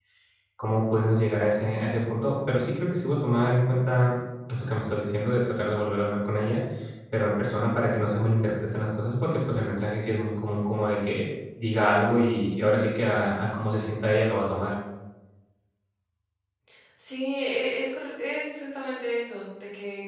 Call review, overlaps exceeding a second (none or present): none